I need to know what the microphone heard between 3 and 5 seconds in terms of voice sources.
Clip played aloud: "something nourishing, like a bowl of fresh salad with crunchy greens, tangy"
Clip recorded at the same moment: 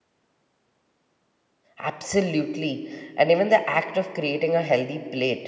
user only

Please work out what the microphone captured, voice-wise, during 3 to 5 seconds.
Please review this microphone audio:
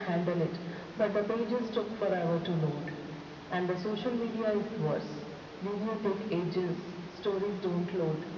echo only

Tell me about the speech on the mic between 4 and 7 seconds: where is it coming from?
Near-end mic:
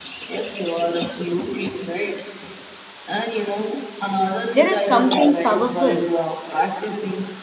both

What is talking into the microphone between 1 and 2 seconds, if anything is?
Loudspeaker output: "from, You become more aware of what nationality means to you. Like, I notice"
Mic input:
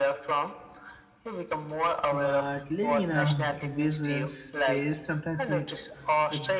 echo only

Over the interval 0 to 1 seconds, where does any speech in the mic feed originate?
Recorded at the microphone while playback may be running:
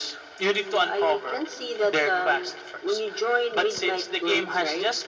echo only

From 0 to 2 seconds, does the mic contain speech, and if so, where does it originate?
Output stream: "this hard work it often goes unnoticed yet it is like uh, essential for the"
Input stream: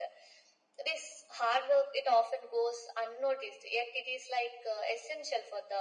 echo only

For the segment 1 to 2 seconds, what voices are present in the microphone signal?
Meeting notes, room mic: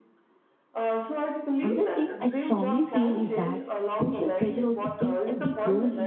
both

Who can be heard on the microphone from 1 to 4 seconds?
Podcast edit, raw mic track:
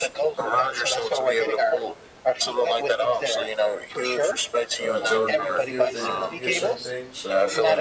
echo only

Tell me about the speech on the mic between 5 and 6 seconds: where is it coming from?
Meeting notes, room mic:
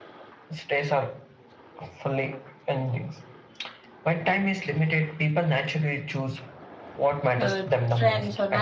echo only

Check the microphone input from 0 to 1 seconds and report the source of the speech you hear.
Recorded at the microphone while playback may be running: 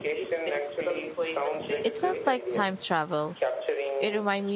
echo only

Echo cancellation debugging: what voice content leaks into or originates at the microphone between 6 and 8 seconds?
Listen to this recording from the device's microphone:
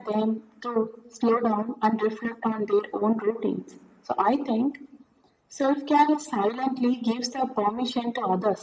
echo only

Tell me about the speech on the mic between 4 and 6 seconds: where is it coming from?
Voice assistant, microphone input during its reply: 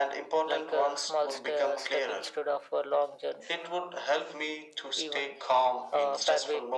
echo only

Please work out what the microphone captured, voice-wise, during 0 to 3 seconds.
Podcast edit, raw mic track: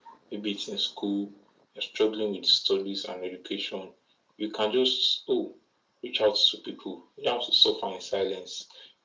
echo only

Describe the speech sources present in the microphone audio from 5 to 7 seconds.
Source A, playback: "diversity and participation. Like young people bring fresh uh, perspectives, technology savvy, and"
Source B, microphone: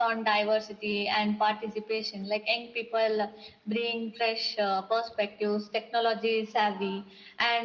echo only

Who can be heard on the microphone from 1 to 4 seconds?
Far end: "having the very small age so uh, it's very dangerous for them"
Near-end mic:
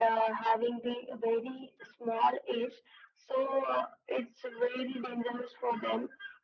echo only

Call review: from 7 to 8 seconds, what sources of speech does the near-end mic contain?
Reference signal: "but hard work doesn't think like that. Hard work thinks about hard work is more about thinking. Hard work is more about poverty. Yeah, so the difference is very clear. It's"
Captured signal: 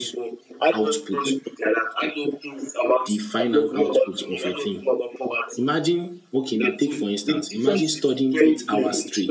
both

